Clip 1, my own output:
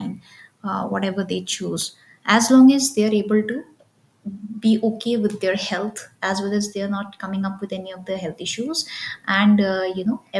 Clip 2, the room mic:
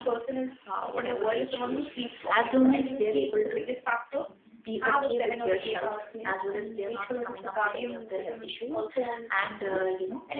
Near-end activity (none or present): present